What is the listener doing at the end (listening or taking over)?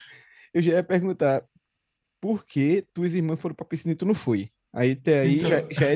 listening